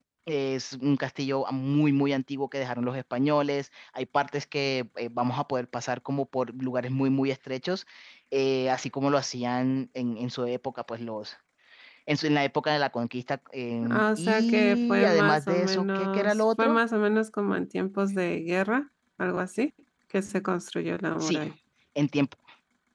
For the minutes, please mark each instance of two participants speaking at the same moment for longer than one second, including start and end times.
13.9-16.8

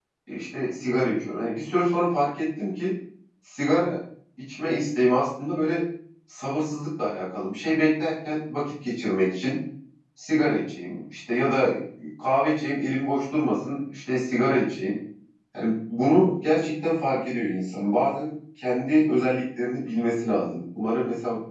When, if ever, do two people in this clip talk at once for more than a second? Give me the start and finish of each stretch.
none

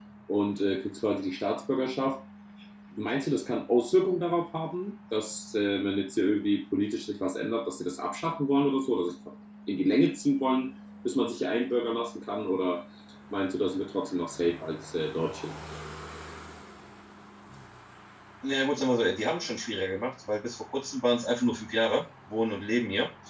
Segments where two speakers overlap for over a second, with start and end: none

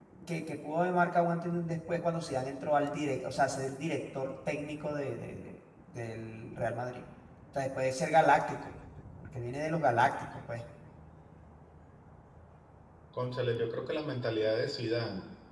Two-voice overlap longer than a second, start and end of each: none

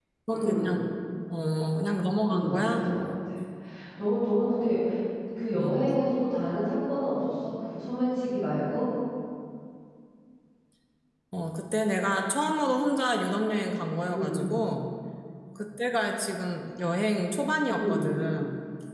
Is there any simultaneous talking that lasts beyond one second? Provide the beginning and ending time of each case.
none

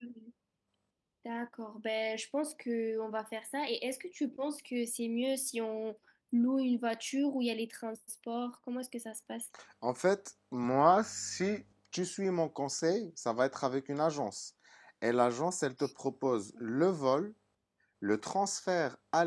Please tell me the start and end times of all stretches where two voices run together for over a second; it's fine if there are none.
none

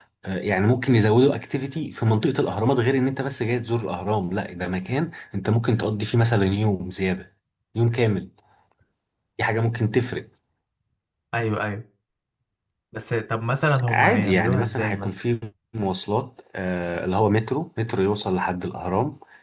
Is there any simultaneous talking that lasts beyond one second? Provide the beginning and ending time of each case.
13.9-15.1

